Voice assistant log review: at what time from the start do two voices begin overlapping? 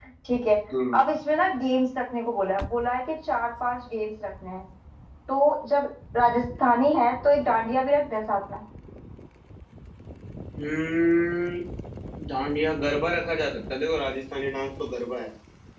none

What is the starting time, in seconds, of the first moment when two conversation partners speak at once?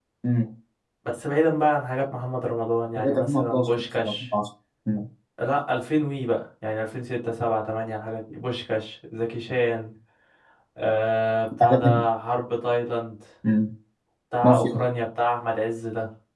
3.0 s

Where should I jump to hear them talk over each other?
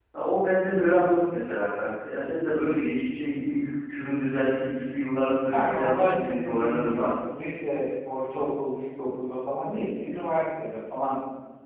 5.5 s

